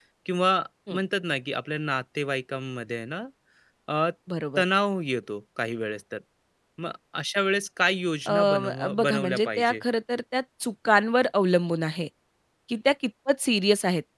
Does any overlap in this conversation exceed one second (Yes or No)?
Yes